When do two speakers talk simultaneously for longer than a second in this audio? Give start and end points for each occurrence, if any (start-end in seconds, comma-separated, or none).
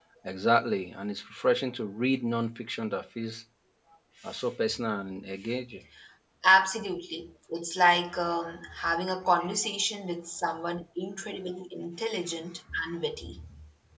none